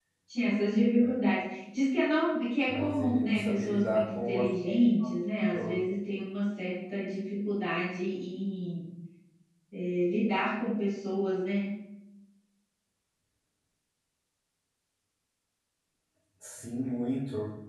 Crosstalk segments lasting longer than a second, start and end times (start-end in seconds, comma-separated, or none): 2.7-4.4